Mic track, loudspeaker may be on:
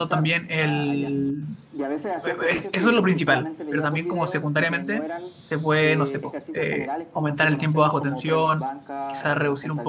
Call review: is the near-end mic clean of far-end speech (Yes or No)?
No